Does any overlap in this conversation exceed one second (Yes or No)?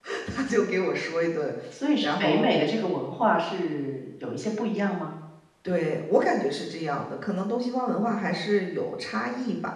No